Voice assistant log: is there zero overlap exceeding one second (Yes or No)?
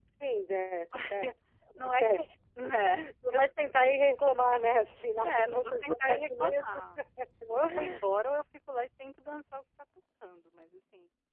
No